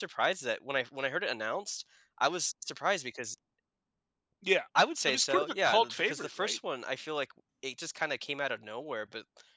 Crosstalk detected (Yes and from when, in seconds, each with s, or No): Yes, from 5.0 s